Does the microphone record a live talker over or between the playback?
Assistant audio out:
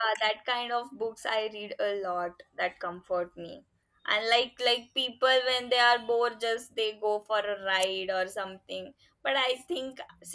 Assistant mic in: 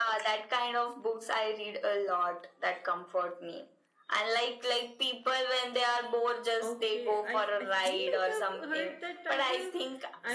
Yes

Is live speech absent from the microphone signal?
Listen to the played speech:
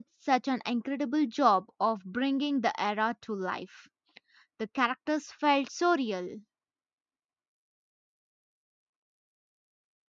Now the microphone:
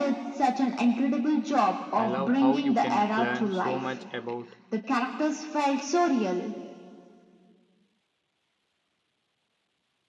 No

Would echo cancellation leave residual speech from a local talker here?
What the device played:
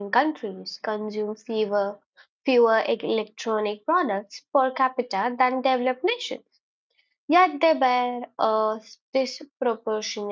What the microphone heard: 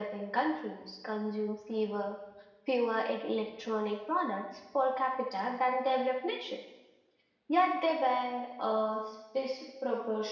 No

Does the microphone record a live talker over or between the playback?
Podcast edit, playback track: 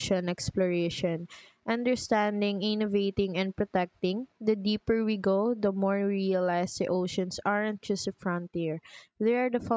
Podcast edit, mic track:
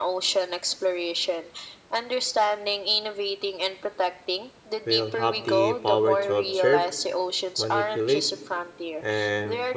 Yes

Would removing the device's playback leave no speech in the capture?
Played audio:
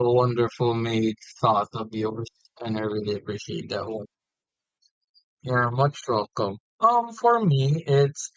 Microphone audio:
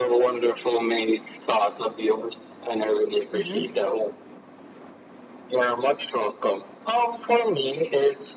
No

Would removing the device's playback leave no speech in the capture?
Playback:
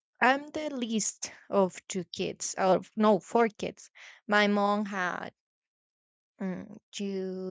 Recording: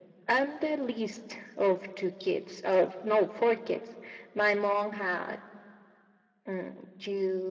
Yes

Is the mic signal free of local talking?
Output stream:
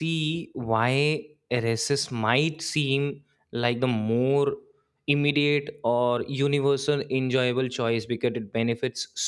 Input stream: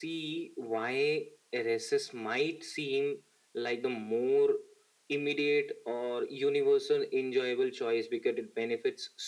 Yes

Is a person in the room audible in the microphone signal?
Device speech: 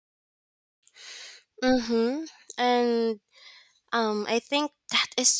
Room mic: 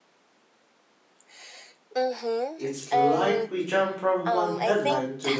Yes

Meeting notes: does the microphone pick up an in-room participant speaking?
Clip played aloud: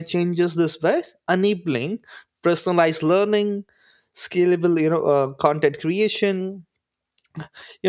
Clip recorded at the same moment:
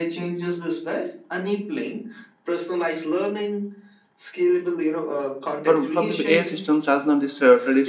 Yes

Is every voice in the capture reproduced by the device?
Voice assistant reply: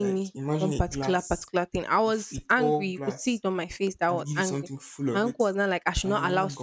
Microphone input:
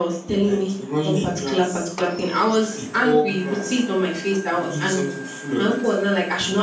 Yes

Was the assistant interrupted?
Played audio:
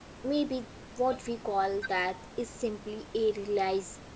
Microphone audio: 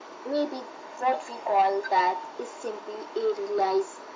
No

